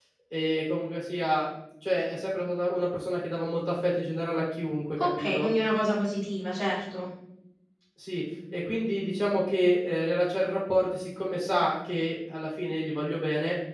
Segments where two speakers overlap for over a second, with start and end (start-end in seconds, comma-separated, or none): none